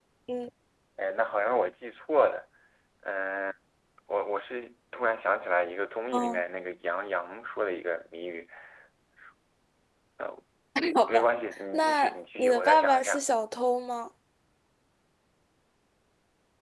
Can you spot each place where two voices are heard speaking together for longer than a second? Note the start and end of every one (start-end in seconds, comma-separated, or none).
11.7-13.2